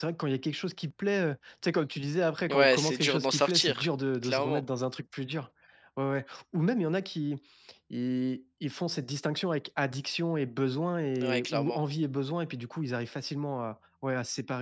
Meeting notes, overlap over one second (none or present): present